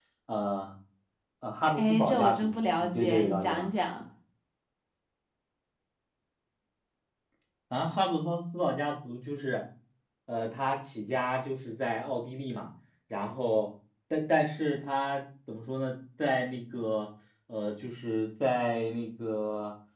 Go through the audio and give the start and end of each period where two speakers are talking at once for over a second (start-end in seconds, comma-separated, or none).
1.8-3.7